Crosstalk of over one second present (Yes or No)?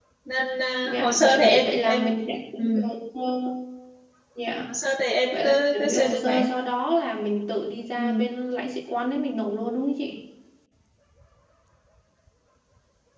Yes